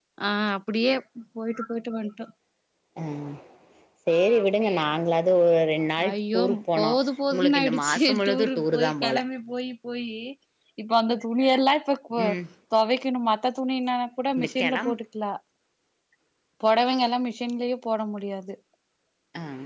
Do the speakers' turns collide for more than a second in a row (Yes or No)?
Yes